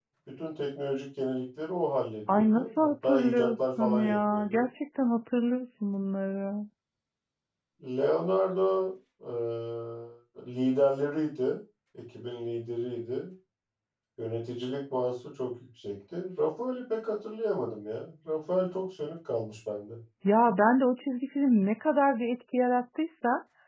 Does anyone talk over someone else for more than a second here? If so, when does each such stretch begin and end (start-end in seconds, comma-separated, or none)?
2.3-4.6